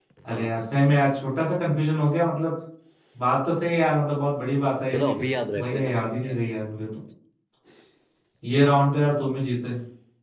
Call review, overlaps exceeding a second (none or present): present